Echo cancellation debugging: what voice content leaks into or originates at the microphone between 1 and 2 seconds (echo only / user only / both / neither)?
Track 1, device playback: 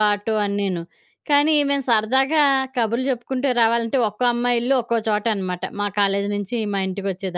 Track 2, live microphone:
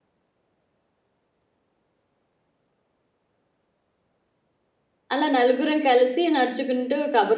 neither